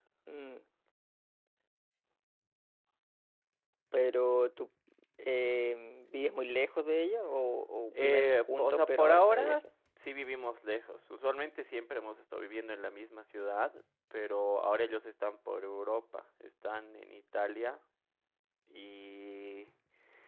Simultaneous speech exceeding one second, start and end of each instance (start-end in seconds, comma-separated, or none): 7.9-9.6